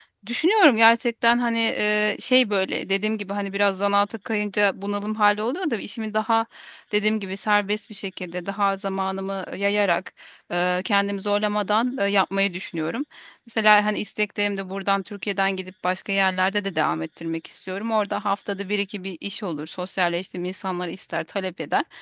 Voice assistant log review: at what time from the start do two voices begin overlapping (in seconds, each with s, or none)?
none